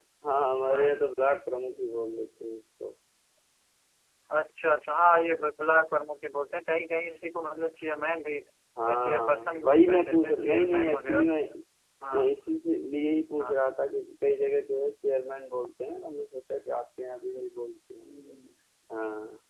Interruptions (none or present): present